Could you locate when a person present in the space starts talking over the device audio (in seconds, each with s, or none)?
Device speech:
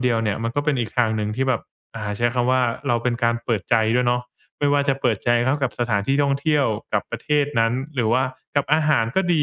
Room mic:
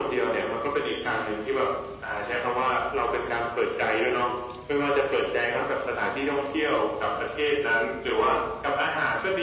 none